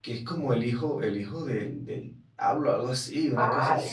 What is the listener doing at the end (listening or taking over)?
taking over